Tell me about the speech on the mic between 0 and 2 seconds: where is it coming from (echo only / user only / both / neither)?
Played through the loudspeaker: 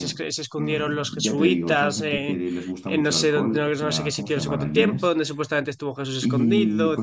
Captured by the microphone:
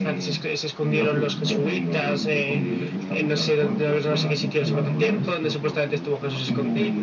both